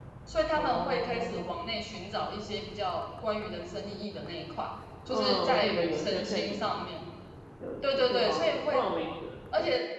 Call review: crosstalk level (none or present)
present